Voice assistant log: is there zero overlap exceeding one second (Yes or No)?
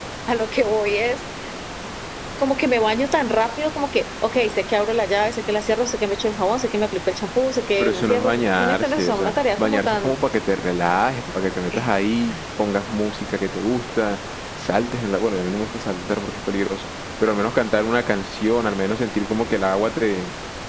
No